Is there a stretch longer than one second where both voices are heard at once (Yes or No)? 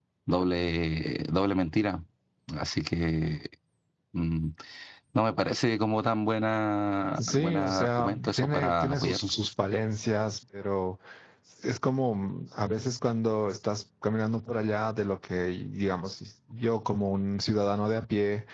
Yes